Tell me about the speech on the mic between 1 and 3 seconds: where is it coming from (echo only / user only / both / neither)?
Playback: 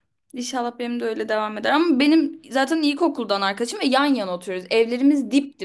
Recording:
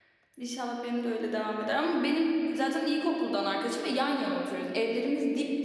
echo only